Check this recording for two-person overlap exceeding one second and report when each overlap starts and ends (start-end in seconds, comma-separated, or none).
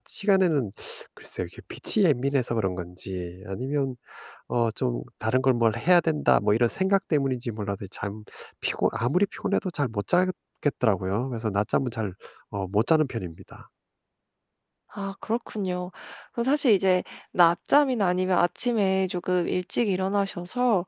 none